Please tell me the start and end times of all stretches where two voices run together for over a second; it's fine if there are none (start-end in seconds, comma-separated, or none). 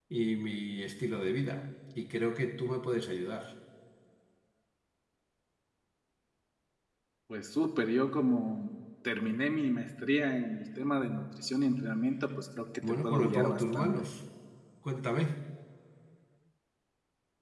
12.8-14.1